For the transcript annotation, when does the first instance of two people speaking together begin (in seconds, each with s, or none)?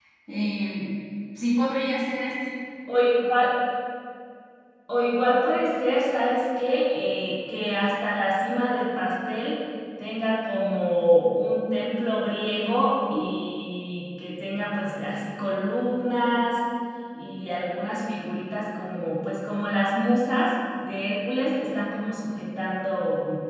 none